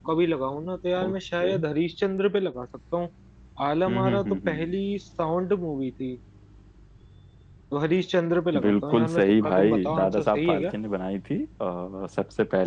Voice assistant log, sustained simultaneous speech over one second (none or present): present